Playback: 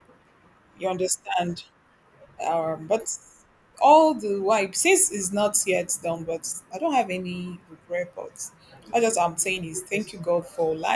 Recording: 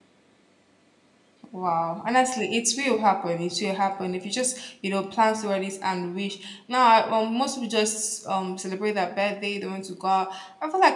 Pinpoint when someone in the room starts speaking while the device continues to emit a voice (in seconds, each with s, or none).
1.5 s